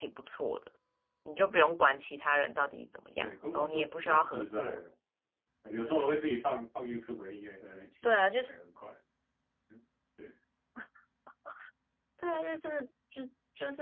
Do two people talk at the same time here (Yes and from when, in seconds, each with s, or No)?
Yes, from 3.2 s